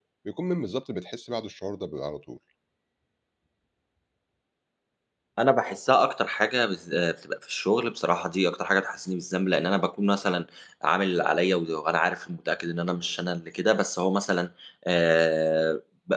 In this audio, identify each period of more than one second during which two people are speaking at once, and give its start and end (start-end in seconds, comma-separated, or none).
none